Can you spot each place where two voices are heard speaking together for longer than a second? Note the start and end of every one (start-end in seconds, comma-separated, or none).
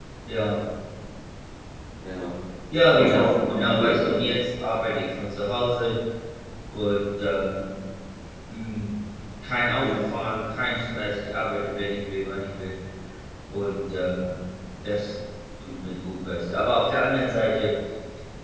2.9-4.2